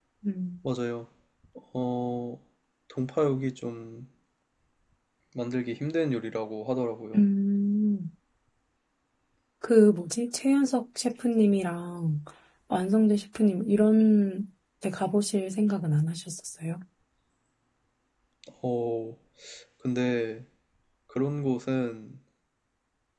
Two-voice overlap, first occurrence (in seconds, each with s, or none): none